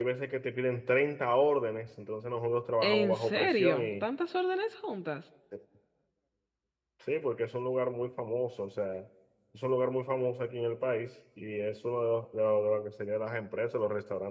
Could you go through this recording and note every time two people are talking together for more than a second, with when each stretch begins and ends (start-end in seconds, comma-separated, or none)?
2.8-4.0